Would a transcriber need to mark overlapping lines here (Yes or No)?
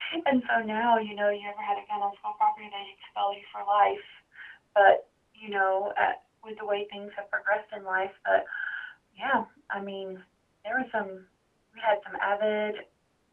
No